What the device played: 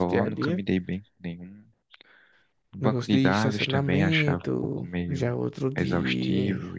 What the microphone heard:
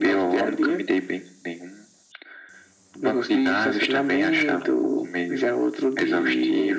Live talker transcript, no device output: none

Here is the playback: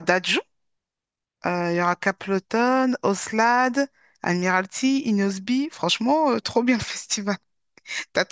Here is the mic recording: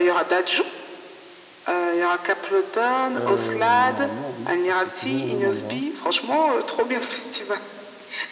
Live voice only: Euh, normalement, oui, mais c'est toujours au même endroit.

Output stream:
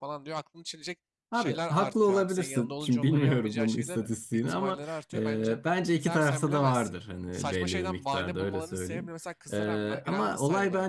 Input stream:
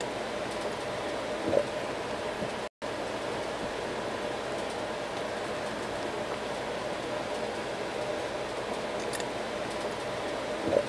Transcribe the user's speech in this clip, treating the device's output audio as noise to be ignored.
none

